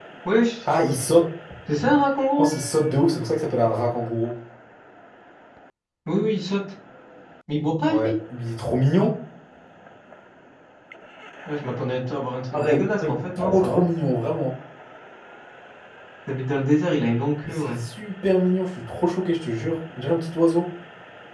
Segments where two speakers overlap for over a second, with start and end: 12.5-13.8

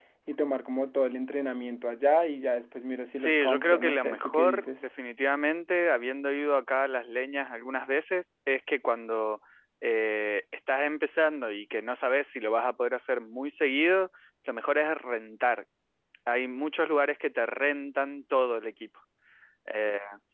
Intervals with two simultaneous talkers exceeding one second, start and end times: 3.1-4.9

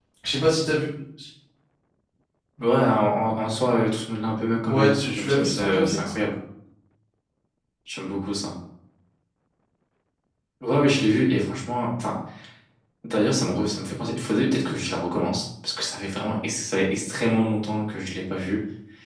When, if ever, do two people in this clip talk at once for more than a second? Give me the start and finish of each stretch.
4.7-6.1

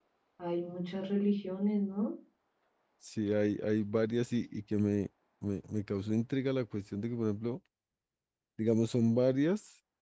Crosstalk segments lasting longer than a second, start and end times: none

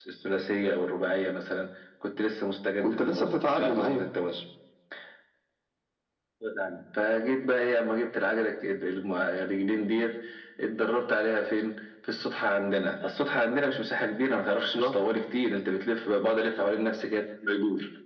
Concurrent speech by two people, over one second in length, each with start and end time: 2.8-4.0

